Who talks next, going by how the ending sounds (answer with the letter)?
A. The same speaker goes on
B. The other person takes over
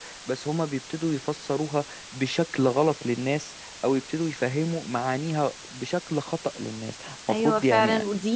B